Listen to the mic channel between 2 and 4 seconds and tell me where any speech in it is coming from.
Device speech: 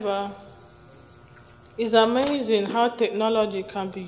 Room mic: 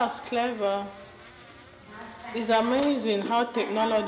both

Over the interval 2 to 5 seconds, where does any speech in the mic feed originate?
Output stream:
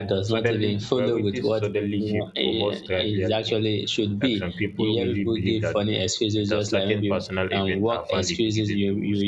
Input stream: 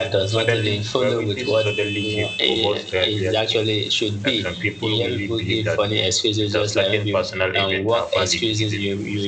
echo only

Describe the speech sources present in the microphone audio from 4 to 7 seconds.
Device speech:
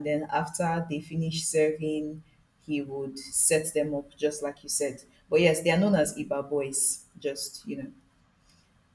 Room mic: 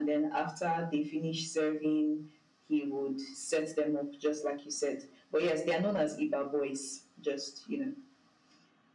echo only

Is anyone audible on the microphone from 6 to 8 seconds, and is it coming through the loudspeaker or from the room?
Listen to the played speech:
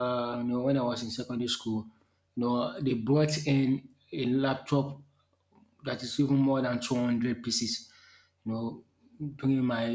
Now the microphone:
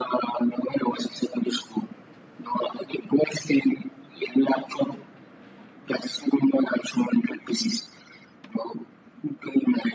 echo only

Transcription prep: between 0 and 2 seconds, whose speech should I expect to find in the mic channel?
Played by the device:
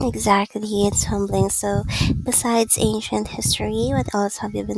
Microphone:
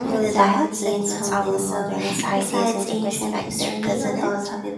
both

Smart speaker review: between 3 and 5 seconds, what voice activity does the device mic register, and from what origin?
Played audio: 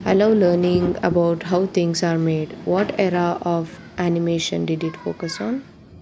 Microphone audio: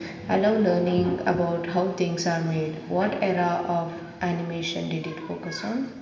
echo only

